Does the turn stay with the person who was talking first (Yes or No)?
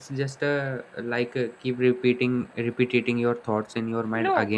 No